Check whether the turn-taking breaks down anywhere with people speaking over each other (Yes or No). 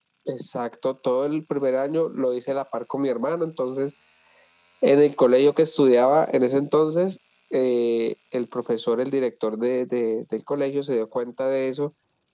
No